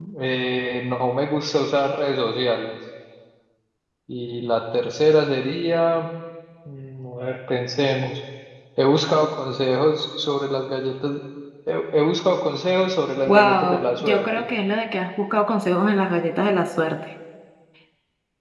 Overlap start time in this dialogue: 13.3 s

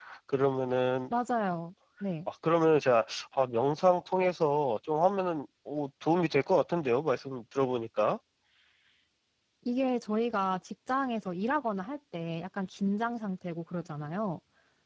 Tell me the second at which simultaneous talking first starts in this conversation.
none

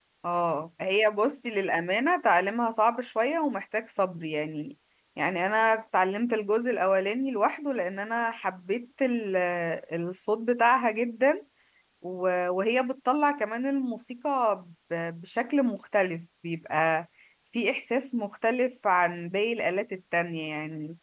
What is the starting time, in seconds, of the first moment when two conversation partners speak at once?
none

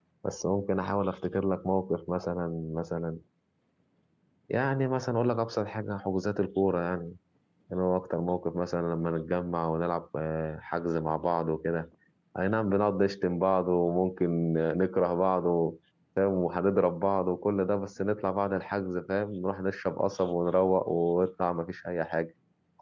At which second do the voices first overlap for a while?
none

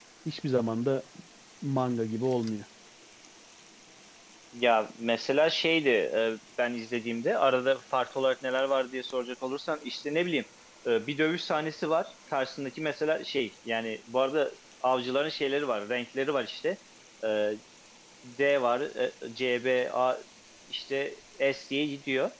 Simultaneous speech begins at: none

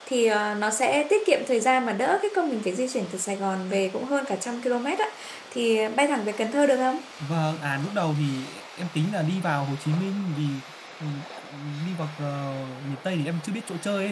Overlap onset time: none

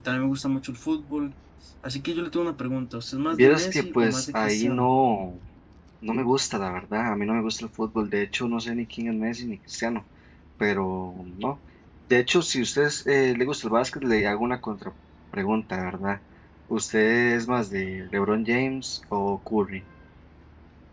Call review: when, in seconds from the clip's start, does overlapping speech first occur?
3.3 s

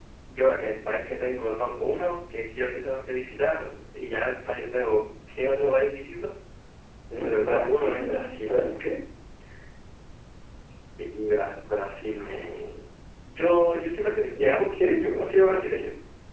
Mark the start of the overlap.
7.2 s

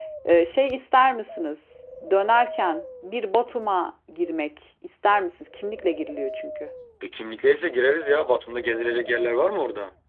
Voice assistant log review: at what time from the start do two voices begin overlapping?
none

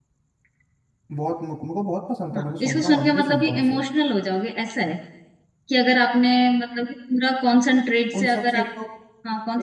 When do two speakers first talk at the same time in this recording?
2.3 s

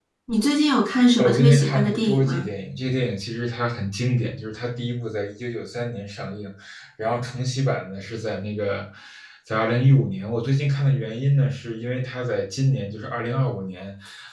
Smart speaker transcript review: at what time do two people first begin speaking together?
1.2 s

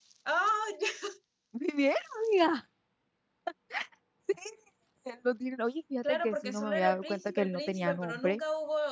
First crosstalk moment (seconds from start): 6.0 s

